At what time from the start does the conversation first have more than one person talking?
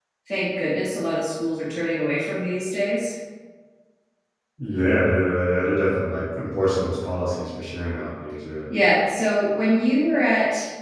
none

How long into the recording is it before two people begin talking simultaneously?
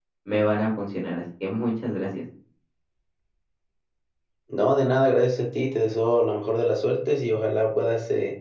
none

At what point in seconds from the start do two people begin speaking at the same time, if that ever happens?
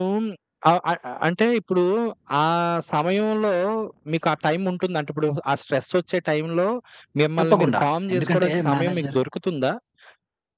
7 s

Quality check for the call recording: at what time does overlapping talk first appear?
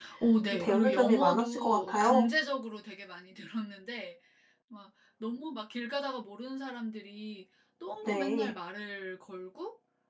1 s

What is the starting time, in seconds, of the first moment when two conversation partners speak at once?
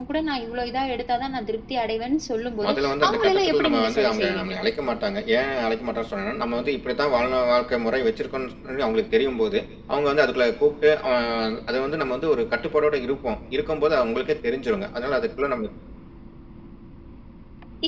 3 s

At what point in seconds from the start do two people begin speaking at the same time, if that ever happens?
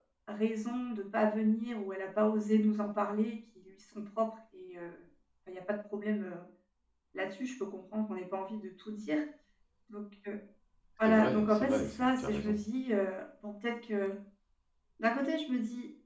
11 s

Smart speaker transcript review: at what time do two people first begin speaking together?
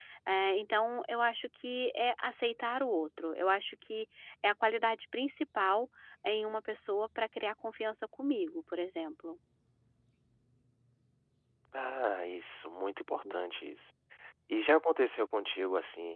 none

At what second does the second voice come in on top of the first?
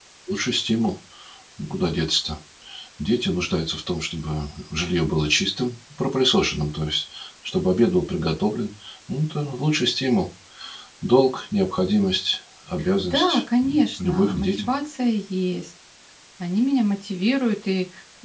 13 s

